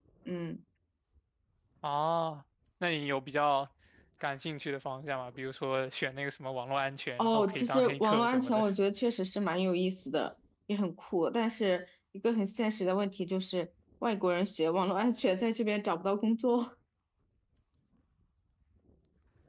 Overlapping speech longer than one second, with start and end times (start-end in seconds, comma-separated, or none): 7.2-8.6